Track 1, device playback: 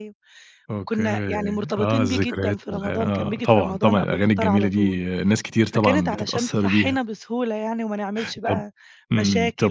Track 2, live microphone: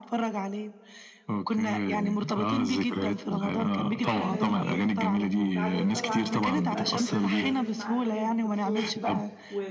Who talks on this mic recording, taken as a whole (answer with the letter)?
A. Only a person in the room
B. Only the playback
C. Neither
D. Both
D